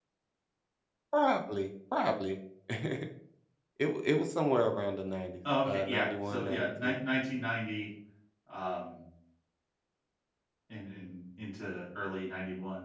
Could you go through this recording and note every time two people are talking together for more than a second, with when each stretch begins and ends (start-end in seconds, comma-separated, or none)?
5.6-7.0